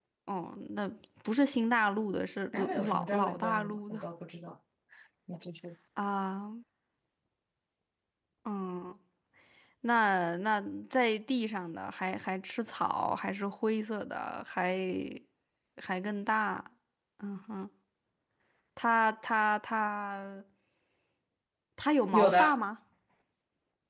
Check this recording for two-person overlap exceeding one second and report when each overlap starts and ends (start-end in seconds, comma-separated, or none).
2.5-4.0